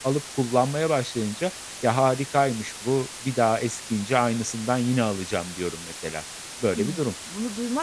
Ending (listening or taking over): taking over